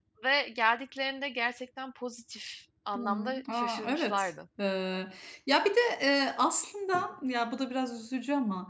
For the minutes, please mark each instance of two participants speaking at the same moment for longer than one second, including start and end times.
3.0-4.3

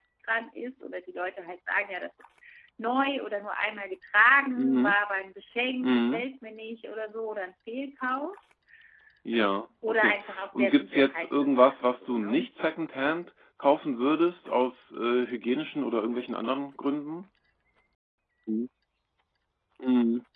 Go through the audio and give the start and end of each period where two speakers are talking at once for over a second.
9.9-12.5

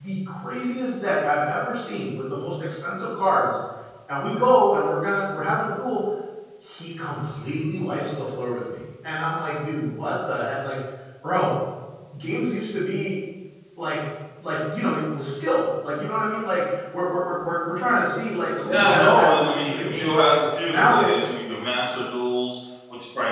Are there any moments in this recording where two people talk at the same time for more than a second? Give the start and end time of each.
18.6-20.1

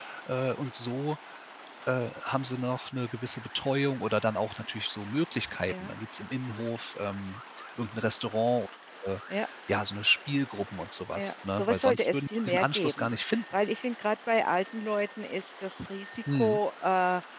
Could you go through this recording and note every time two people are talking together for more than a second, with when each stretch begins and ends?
11.2-13.1

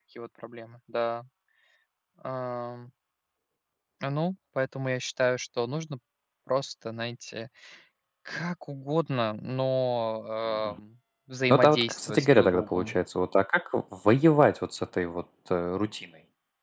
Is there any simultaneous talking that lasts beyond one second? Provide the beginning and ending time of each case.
11.5-13.0

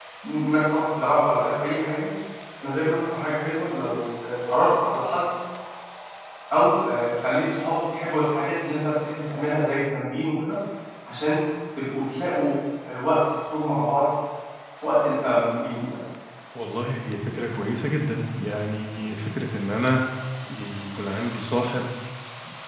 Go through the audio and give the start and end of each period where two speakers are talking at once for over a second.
none

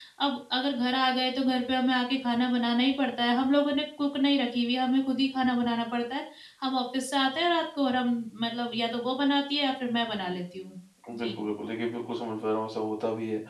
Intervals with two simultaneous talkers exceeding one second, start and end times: none

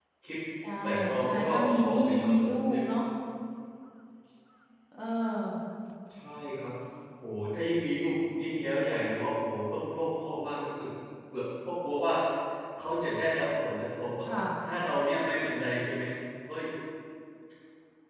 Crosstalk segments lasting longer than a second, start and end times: 0.8-2.8

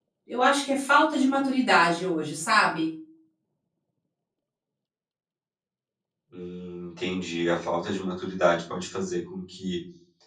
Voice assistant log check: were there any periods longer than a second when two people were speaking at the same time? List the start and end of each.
none

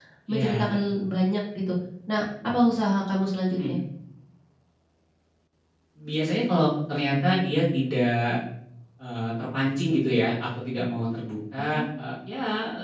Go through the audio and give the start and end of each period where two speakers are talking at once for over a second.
none

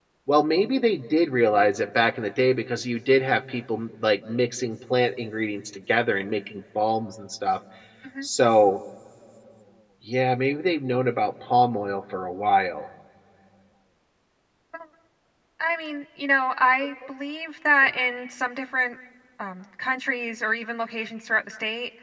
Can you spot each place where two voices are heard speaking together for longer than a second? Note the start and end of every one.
none

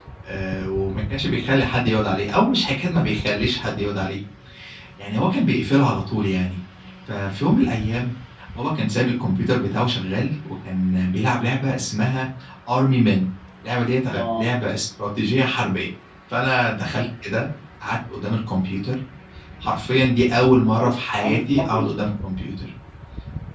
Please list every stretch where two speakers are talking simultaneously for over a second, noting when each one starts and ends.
20.6-21.9

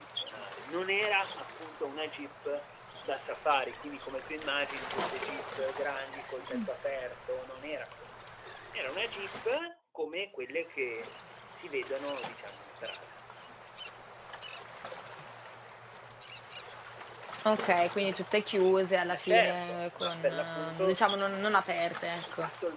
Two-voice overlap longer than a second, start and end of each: 19.1-21.0

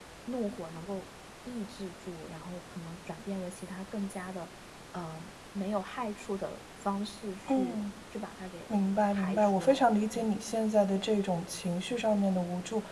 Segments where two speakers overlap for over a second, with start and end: 9.1-10.4

